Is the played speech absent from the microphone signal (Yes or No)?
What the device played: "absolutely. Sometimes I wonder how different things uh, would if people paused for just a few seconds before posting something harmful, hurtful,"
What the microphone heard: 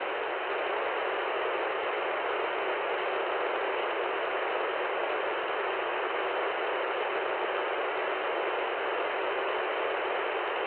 Yes